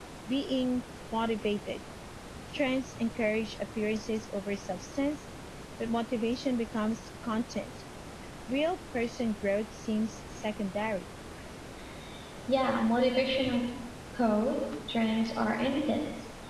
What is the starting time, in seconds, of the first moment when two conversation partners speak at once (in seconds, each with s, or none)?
none